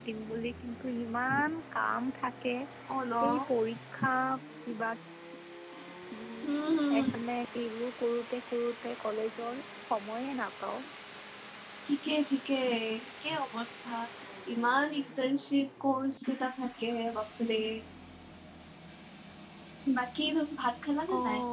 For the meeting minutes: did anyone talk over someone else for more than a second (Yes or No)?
No